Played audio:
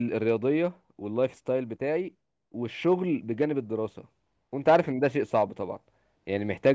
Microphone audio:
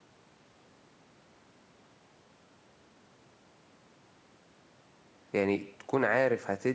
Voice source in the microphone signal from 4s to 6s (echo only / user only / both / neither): user only